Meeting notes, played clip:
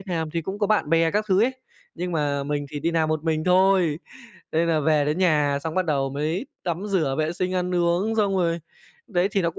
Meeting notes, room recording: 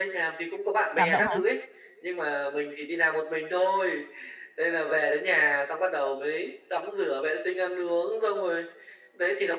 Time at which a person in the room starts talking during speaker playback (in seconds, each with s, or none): 0.9 s